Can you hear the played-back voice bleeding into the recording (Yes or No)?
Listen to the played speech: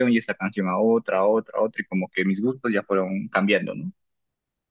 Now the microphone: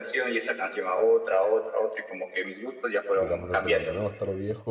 Yes